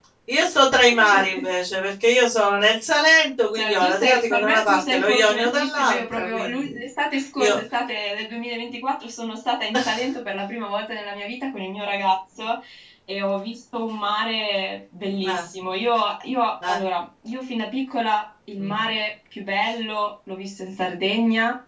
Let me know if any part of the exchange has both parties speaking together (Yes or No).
Yes